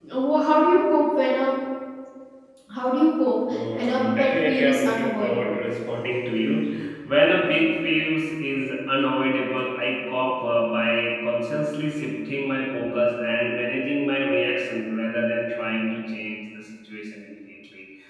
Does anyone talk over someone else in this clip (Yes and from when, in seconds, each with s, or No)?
Yes, from 3.5 s